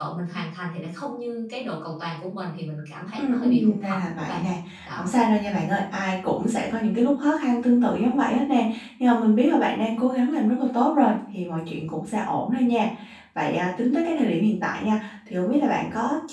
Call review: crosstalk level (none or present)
present